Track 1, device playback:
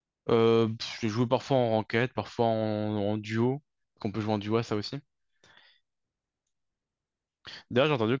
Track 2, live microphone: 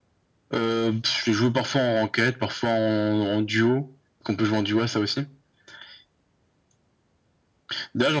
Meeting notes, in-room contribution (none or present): none